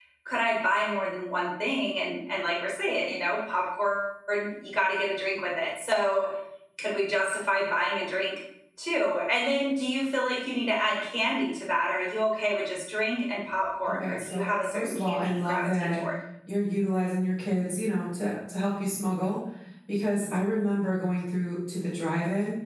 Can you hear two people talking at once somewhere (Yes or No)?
Yes